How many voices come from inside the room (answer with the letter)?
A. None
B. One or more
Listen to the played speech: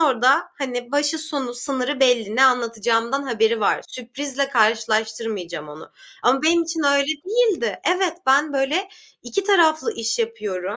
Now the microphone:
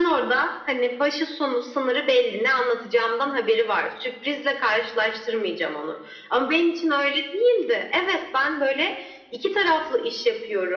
A